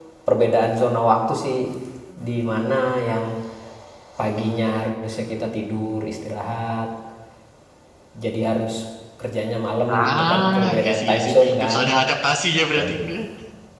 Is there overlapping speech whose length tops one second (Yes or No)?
Yes